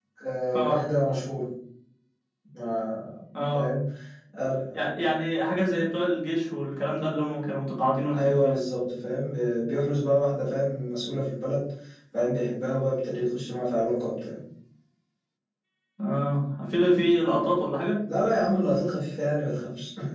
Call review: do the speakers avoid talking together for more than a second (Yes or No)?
Yes